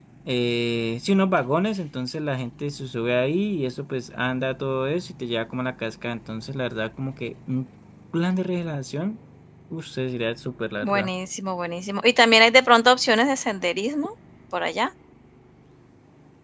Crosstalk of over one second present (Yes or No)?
No